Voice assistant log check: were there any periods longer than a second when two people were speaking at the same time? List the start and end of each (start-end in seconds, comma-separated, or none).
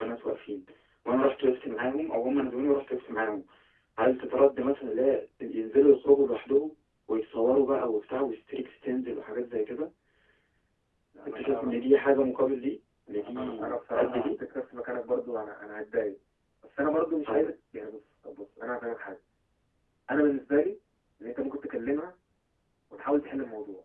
13.1-14.3